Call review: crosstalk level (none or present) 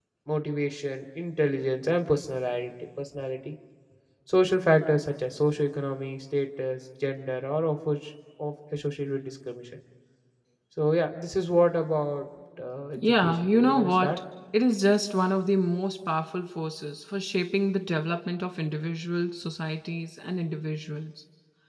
present